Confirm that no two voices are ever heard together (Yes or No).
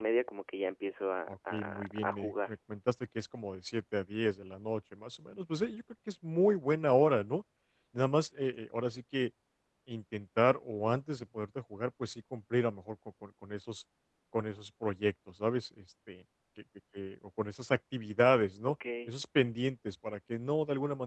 No